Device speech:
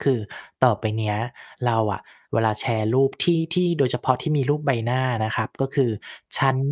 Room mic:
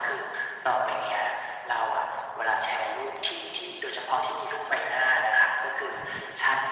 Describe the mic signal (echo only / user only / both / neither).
echo only